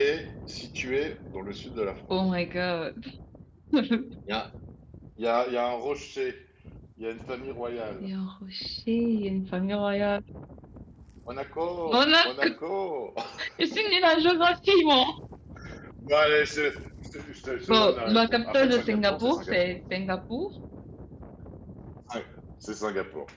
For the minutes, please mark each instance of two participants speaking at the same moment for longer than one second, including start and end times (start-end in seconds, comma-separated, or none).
17.7-19.6